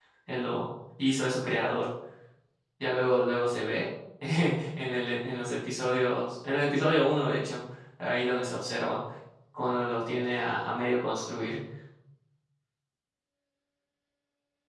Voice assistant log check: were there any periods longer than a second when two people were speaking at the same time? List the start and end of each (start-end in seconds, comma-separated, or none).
none